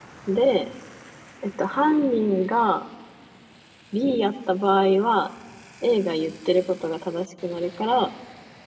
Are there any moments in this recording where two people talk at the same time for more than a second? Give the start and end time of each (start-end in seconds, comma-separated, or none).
none